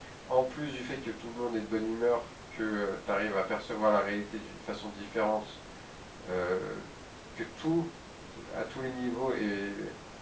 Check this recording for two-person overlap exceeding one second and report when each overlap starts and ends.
none

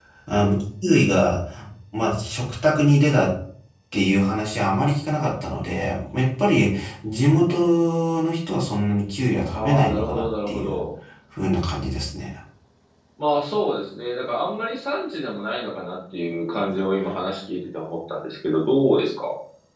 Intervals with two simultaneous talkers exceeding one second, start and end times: 9.5-10.8

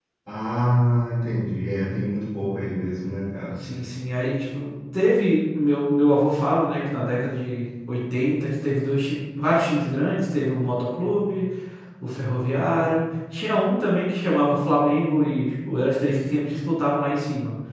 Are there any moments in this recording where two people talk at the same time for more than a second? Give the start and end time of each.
none

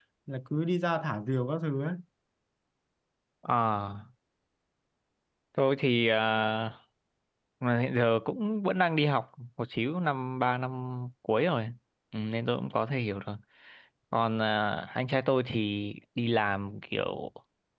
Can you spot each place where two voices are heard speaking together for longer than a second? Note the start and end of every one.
none

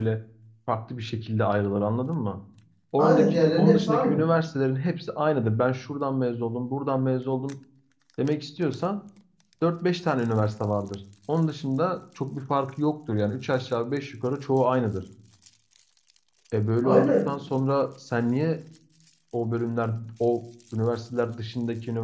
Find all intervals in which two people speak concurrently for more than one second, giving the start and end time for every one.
3.0-4.2

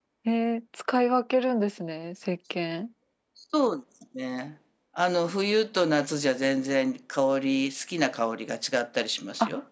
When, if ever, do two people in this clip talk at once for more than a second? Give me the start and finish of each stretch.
none

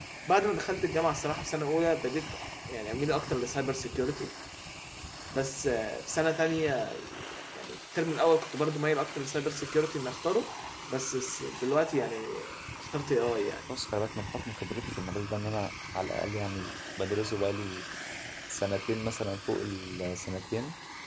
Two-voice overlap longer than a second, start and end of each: none

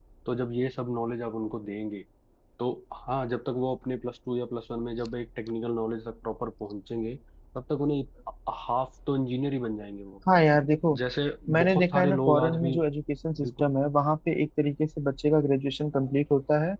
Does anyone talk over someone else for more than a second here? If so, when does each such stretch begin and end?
11.5-12.8

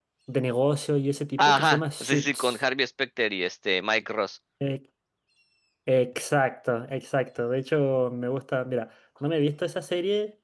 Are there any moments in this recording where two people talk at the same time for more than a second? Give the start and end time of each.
1.4-2.6

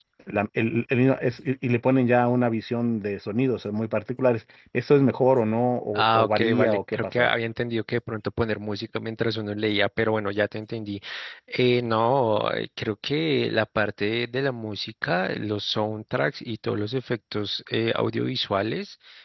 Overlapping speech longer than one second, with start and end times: 6.0-7.3

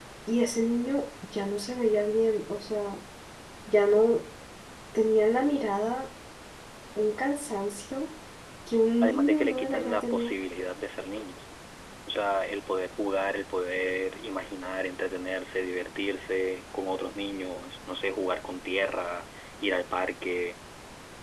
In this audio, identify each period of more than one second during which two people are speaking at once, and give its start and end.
9.0-10.3

